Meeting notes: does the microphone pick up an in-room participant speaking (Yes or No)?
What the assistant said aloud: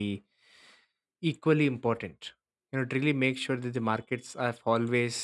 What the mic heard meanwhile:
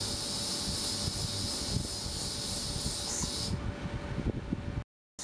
No